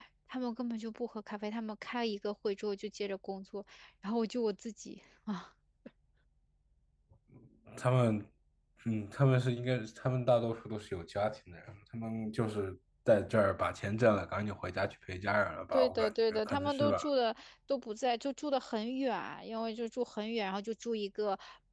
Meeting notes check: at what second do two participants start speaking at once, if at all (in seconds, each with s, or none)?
15.7 s